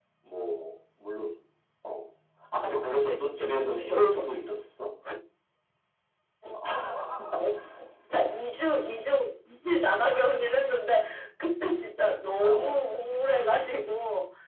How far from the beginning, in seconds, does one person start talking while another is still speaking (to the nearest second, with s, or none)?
3 s